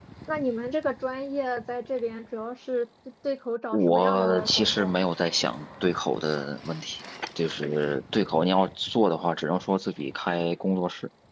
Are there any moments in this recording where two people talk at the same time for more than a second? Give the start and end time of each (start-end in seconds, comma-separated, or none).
3.7-5.0